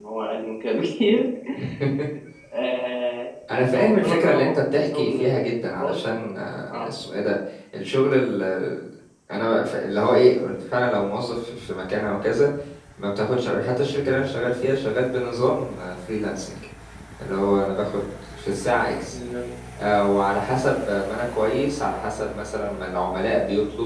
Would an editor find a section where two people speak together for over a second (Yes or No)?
Yes